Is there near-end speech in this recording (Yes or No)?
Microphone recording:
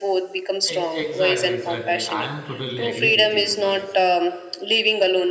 Yes